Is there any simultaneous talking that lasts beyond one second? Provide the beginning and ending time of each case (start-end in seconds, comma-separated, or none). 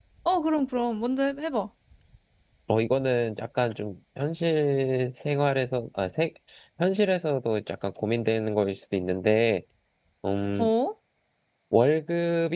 none